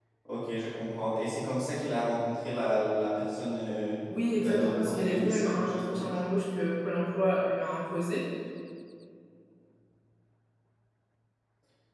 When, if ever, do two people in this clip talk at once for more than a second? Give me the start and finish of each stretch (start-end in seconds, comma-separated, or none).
4.4-6.1